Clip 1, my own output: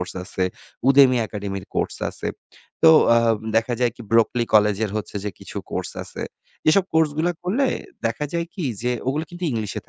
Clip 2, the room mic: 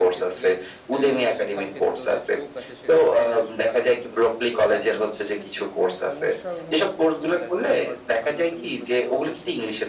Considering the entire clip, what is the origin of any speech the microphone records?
both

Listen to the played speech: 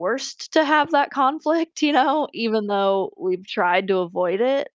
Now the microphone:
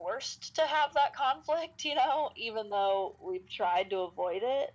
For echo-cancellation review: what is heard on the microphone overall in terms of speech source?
echo only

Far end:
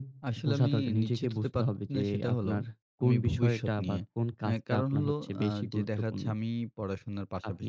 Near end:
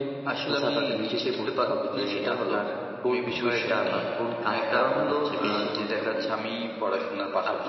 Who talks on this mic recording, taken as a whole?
echo only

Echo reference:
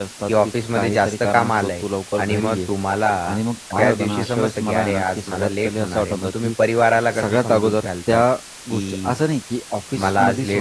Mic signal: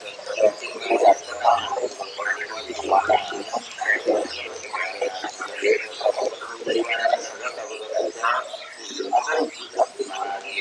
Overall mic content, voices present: echo only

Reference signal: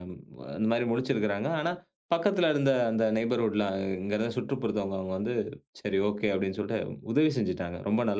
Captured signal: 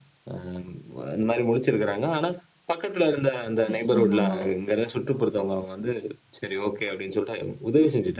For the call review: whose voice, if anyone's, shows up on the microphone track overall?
both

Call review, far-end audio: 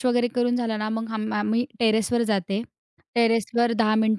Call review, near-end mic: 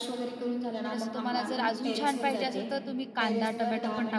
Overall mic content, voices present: both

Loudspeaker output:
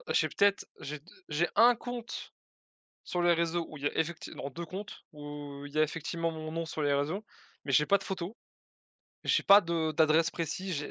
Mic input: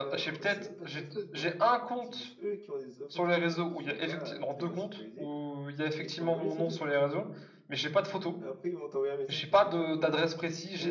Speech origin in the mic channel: both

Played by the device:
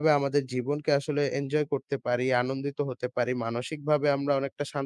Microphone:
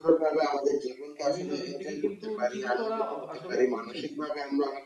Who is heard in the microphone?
both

